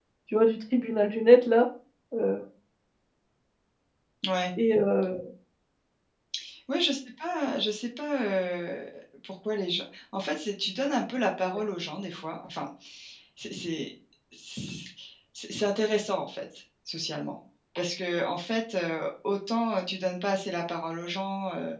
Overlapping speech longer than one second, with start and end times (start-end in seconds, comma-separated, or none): none